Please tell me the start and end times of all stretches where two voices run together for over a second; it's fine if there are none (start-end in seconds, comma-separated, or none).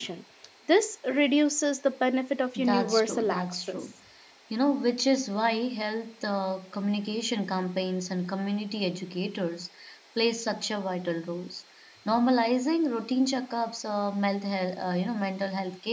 2.6-3.9